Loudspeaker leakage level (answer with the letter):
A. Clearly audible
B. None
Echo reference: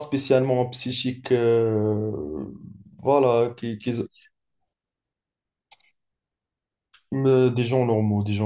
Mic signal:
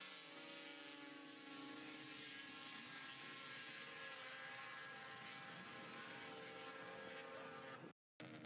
B